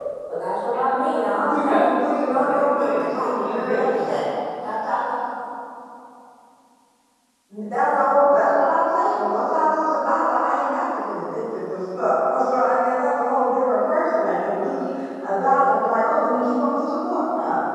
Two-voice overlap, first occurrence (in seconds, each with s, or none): 1.4 s